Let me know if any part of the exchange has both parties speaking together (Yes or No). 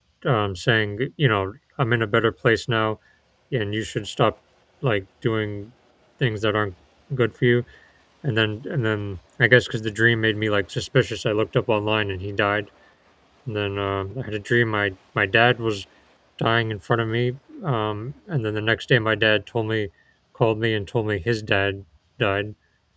No